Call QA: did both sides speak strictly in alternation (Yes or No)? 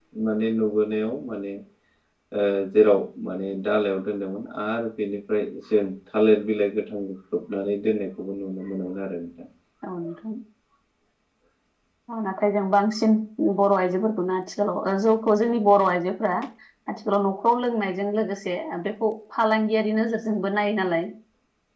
Yes